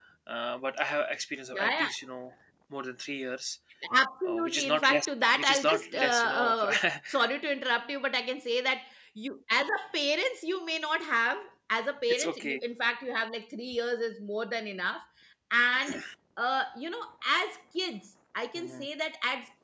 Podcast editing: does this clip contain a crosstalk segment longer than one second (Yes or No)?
Yes